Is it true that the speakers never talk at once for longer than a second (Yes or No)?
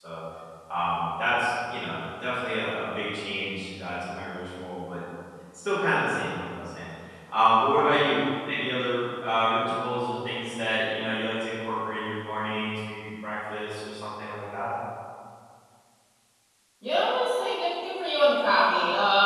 Yes